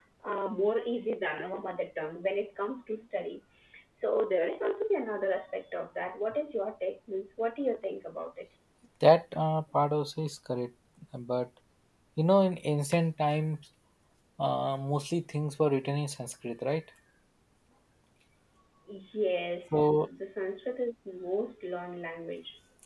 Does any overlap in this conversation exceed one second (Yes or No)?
No